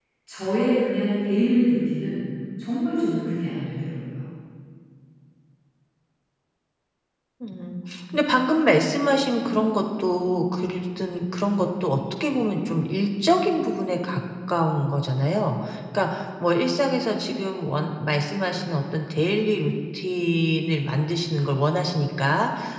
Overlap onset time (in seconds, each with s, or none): none